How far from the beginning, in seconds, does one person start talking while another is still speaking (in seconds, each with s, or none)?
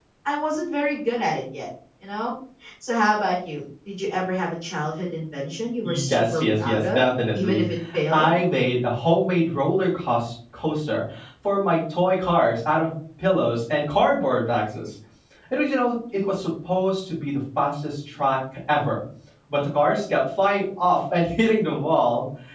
5.8 s